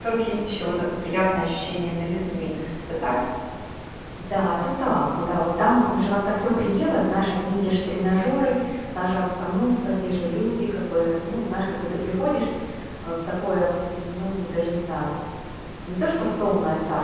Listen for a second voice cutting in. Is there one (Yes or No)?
No